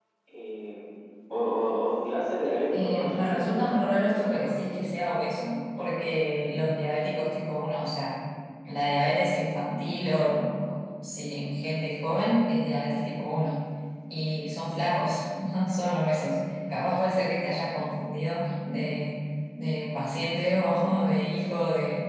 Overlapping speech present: Yes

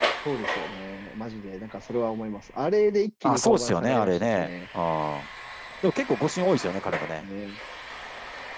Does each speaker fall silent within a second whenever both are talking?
No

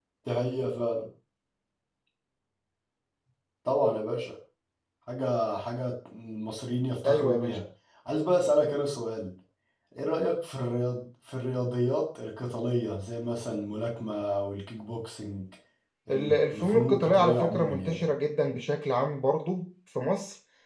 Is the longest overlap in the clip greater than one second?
Yes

